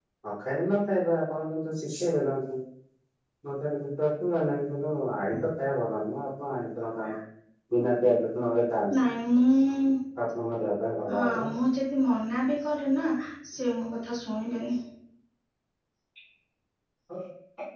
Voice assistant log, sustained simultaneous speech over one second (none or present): none